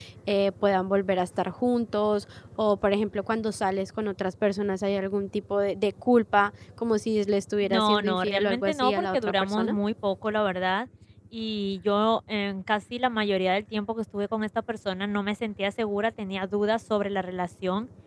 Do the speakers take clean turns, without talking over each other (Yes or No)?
No